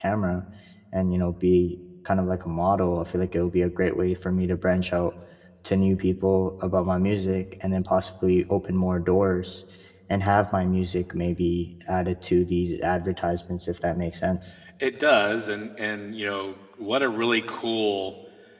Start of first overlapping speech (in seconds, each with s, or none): none